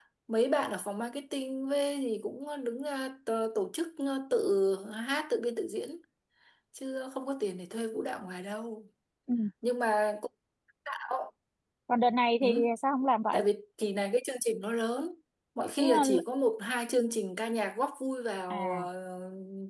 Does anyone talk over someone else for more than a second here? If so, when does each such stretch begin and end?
none

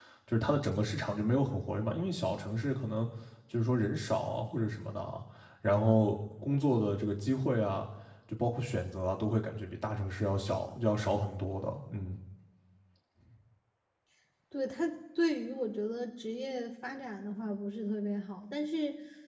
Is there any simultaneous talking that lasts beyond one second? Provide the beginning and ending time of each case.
none

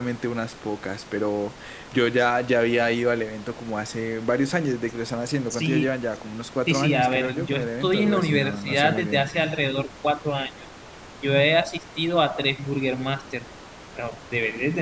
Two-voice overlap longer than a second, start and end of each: 6.7-9.2

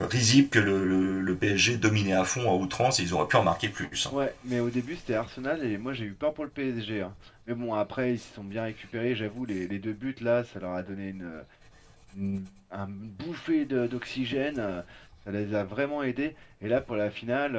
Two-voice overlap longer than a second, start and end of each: none

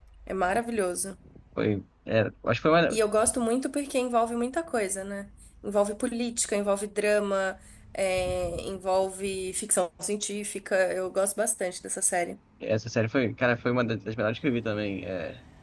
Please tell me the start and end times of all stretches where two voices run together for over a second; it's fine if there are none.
none

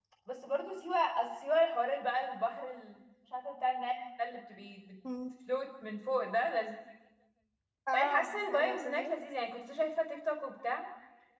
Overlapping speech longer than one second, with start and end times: 7.9-9.1

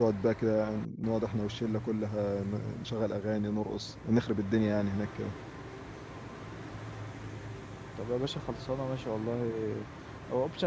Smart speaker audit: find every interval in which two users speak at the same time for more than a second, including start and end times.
none

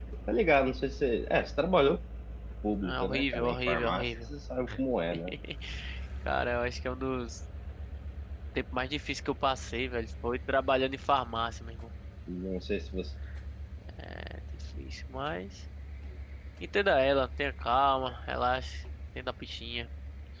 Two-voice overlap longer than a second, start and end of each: 2.8-4.0

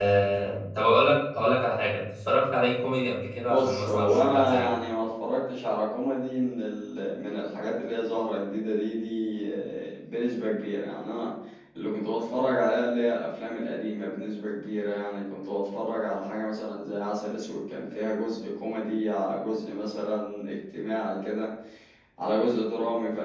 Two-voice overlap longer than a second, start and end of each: 3.4-4.7

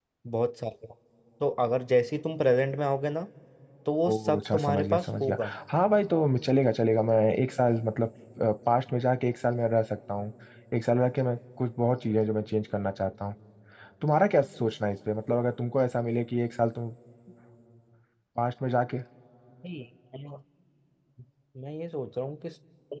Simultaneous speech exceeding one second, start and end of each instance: 4.1-5.5

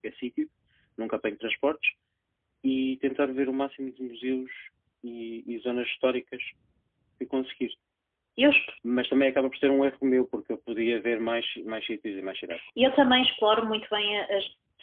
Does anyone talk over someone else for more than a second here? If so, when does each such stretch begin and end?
none

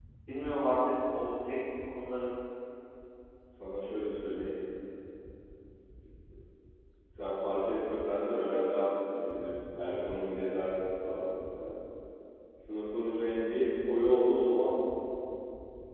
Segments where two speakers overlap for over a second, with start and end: none

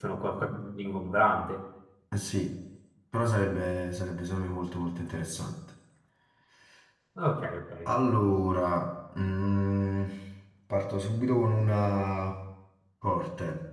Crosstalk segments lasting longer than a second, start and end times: none

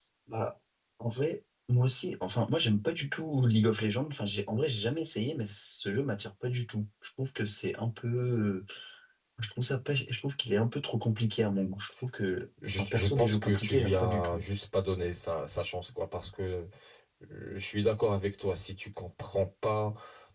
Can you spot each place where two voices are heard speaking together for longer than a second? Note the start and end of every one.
12.8-14.4

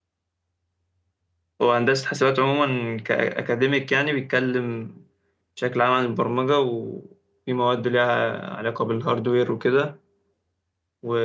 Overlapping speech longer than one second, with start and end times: none

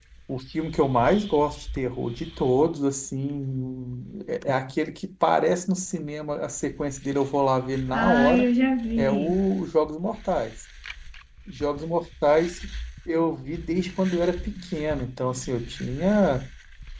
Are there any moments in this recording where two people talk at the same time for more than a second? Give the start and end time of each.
none

